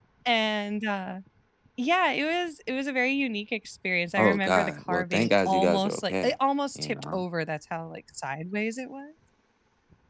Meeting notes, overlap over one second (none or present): present